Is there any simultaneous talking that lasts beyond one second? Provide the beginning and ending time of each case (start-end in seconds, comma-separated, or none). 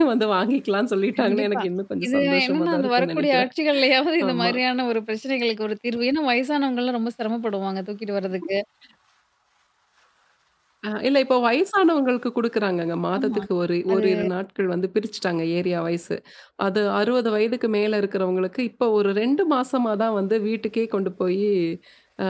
2.0-3.5